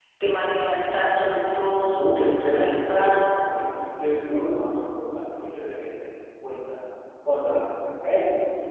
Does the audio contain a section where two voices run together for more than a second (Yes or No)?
Yes